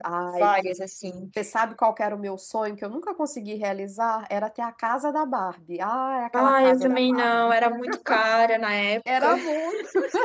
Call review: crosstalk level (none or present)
present